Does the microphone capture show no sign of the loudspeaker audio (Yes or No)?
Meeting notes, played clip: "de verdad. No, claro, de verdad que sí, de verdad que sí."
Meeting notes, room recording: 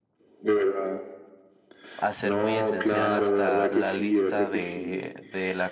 No